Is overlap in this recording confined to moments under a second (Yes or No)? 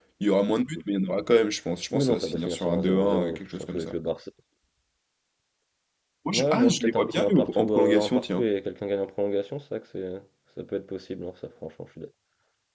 No